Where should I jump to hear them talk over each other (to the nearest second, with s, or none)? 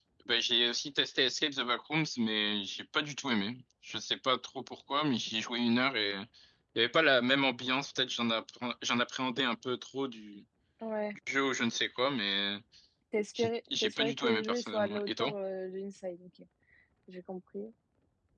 13 s